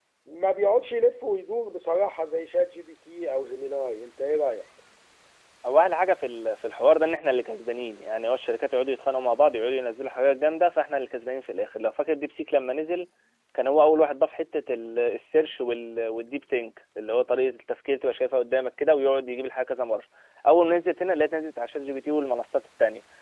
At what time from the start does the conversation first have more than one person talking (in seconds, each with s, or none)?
none